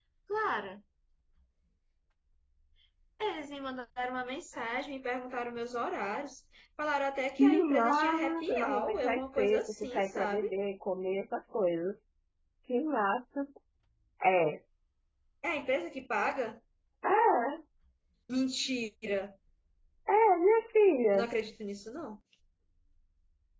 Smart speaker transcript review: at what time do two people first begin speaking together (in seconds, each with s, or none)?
7.4 s